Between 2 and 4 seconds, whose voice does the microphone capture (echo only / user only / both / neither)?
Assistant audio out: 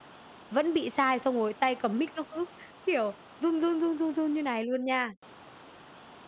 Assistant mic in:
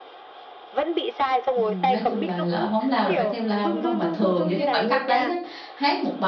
both